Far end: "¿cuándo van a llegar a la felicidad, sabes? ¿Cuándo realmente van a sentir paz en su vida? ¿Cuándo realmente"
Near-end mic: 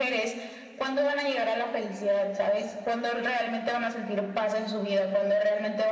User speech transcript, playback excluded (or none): none